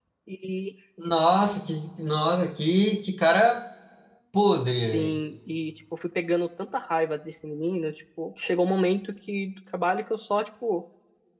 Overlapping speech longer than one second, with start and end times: none

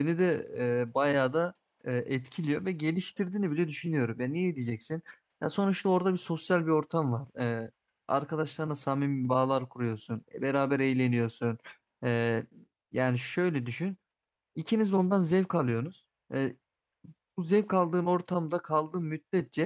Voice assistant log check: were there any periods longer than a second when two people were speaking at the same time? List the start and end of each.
none

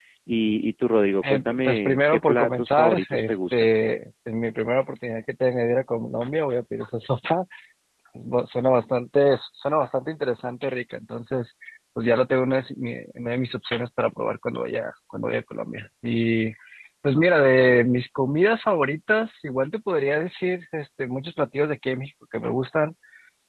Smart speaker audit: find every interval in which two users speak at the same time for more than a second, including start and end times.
1.3-3.7

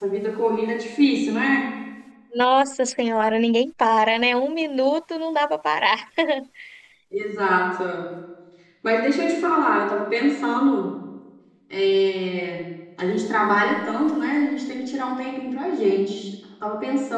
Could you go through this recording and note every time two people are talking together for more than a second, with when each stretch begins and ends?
none

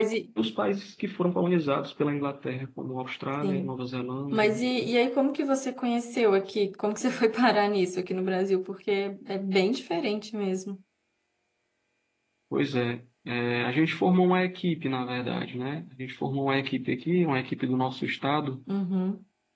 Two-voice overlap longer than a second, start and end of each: none

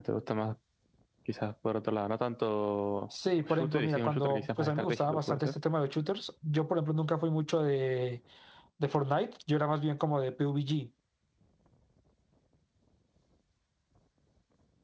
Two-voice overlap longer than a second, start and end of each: 3.3-5.5

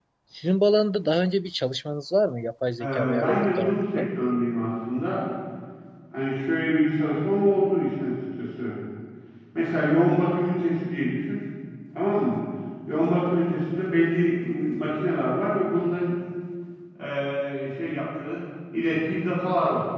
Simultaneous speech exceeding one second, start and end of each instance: 2.8-4.0

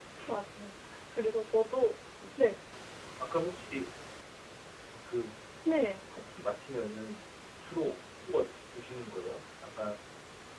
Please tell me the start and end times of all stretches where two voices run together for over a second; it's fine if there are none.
none

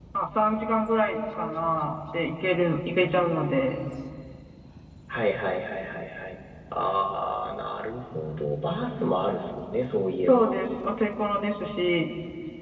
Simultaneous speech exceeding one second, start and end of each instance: none

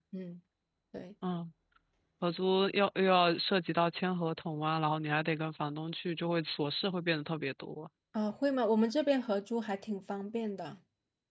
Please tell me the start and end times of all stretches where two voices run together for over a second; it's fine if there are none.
none

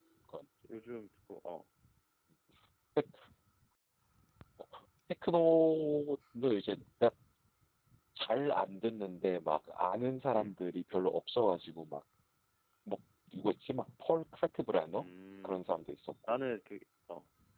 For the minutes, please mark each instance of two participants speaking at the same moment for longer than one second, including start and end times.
none

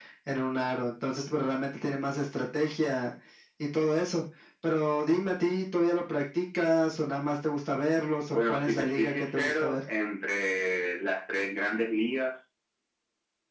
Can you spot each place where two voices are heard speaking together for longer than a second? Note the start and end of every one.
8.5-9.8

